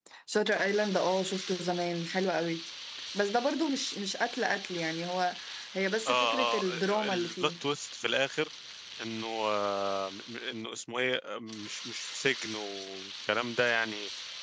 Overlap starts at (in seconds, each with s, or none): 6.1 s